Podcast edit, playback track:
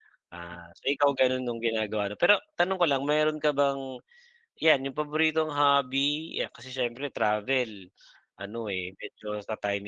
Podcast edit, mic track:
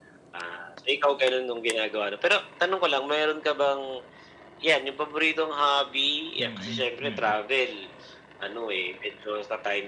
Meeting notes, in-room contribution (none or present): present